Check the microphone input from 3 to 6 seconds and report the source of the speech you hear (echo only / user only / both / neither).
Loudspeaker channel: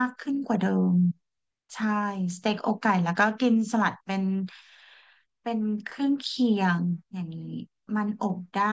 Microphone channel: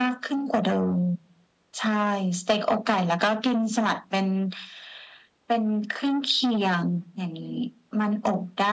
echo only